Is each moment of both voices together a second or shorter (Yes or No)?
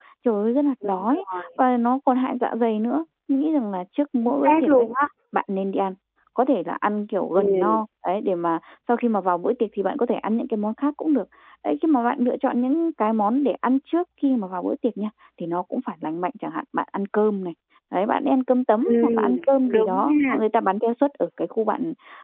No